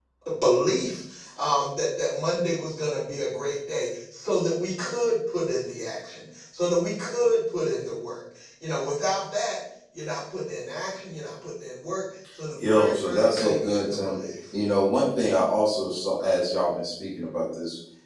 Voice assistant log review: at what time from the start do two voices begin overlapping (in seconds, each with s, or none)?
12.6 s